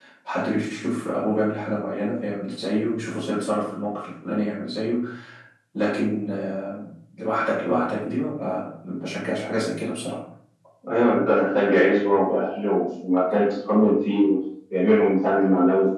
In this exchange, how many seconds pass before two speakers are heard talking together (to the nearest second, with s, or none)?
none